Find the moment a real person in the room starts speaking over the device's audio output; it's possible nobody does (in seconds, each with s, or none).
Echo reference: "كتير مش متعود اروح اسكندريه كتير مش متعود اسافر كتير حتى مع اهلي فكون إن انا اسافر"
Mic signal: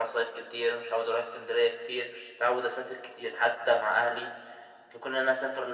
none